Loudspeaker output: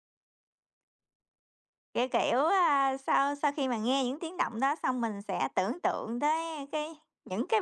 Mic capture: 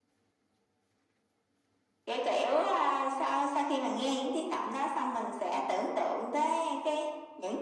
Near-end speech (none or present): none